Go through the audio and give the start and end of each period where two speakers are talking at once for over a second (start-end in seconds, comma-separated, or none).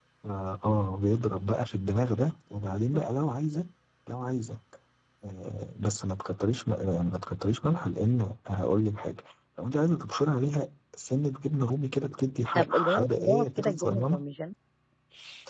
12.6-14.2